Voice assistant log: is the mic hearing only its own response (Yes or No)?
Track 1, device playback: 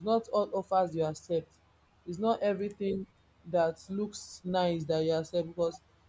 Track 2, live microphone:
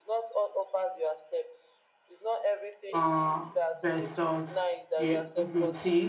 No